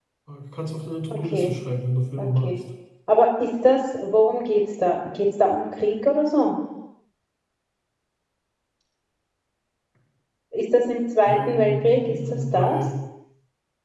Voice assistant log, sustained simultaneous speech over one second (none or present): present